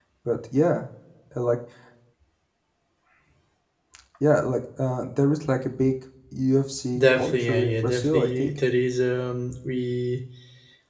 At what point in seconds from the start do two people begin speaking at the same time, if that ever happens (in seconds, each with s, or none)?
7.0 s